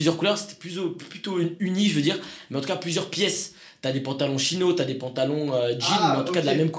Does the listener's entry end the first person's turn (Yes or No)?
No